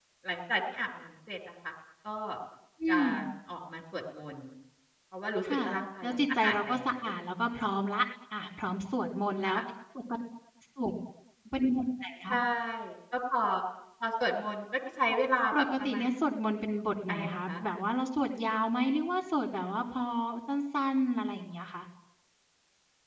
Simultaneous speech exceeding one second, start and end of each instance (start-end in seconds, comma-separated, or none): 5.4-6.9